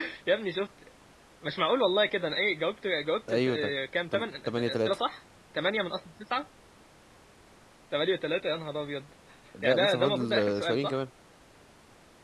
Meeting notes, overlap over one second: present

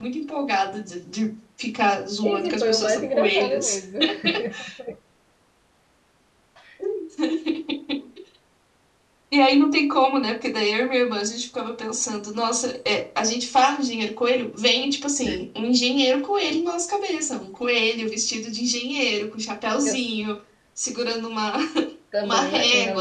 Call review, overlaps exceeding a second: present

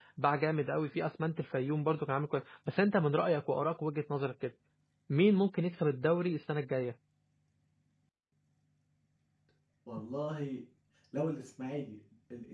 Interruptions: none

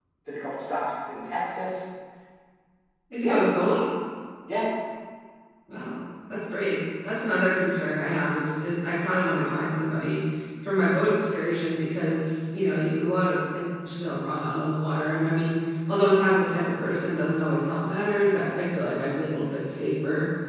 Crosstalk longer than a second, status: none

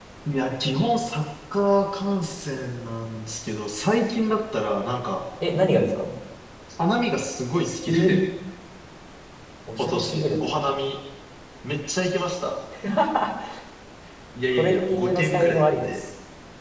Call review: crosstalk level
present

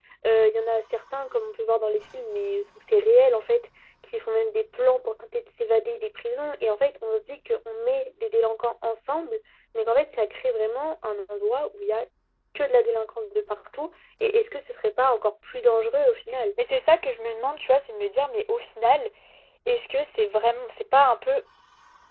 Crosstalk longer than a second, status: none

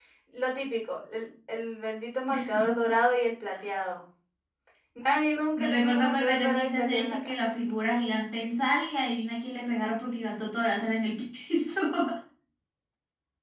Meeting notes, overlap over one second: present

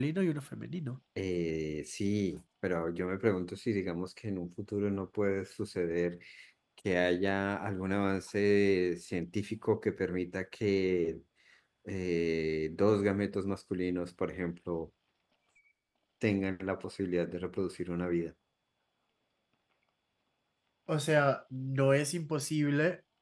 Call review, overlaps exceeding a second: none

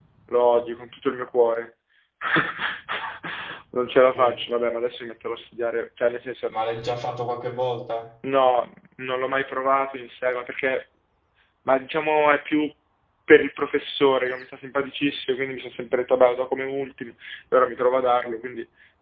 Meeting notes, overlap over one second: none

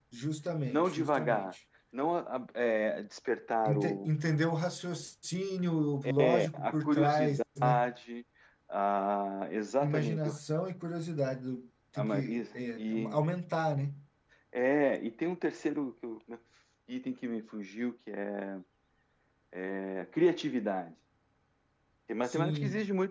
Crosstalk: present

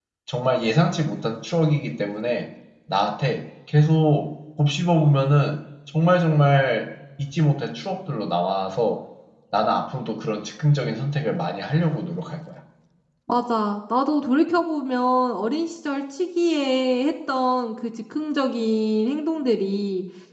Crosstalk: none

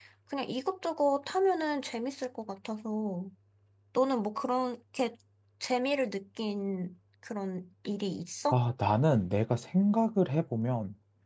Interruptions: none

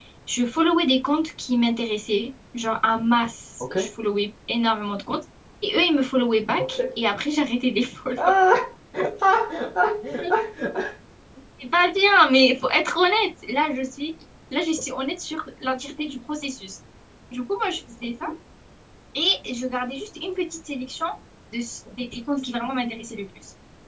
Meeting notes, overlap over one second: none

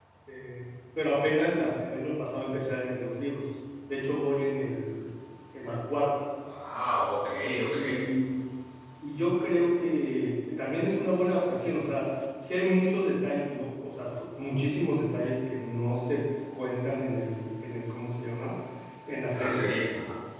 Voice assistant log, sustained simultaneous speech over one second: none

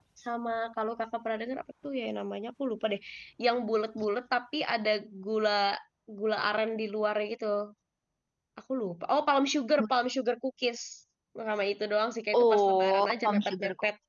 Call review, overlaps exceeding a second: present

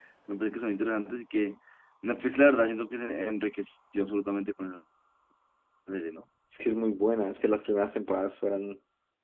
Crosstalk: none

